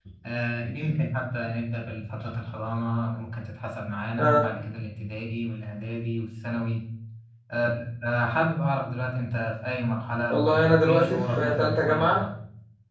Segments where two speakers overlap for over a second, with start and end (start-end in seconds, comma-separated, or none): 10.3-12.2